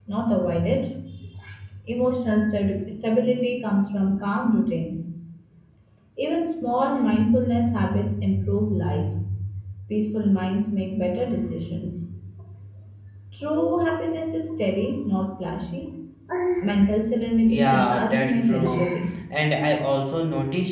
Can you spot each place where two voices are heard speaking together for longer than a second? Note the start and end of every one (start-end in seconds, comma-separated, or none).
17.4-18.9